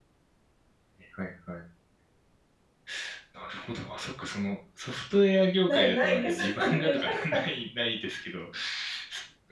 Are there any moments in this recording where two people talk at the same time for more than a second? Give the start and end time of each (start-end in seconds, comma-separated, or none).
5.7-7.4